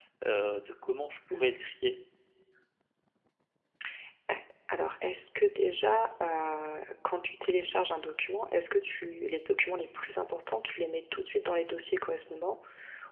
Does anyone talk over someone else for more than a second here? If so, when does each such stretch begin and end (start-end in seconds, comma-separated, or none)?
none